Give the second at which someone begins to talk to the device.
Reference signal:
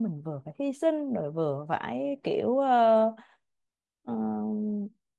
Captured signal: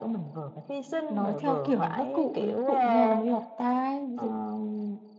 1.1 s

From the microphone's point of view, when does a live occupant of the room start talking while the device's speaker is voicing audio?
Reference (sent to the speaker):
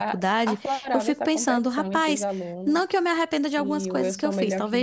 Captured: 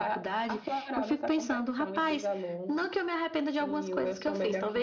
none

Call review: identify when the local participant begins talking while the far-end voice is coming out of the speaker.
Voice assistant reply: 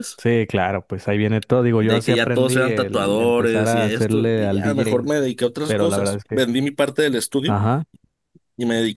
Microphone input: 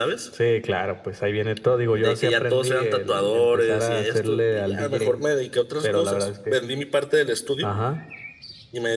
none

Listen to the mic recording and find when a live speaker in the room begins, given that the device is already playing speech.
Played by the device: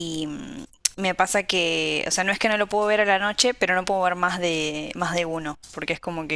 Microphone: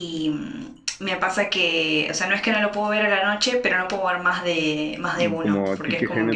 5.2 s

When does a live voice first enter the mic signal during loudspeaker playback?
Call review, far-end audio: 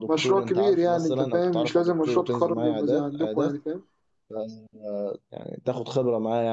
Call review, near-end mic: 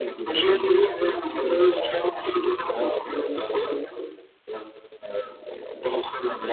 none

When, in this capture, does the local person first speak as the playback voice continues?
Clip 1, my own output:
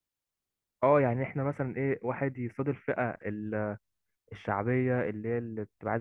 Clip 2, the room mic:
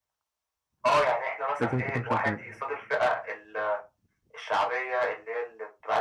1.6 s

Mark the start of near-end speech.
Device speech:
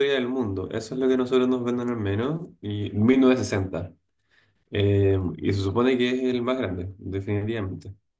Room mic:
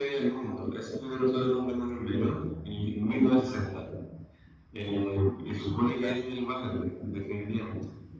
6.0 s

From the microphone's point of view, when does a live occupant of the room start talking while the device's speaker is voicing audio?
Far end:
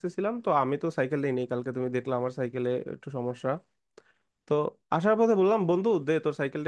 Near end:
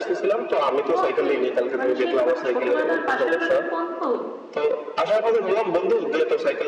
0.9 s

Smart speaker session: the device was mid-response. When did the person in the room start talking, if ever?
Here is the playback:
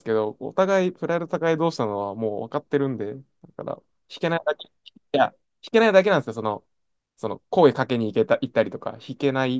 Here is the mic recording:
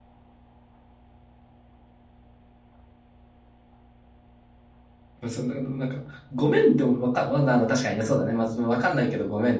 5.3 s

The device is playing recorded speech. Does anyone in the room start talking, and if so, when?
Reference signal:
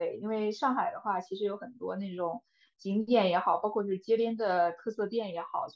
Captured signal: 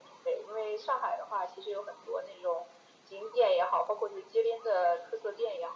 none

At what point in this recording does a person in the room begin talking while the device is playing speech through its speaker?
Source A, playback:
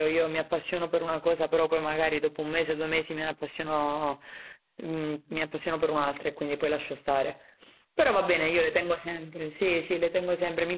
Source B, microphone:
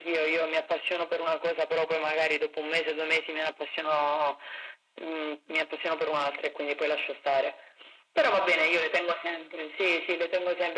none

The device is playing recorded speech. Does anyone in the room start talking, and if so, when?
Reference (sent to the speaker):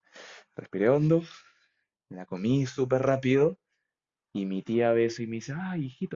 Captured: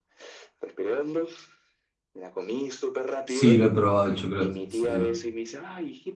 3.2 s

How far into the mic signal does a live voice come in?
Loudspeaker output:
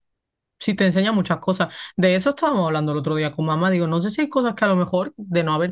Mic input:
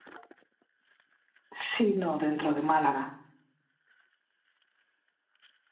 1.5 s

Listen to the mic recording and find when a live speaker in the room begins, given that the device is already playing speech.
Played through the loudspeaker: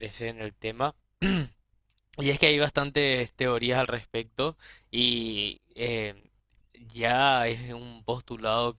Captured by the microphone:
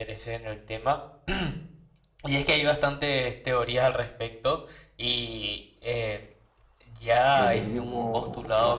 7.3 s

